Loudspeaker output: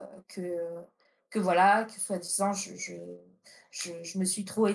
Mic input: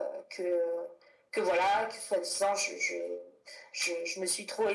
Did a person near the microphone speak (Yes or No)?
No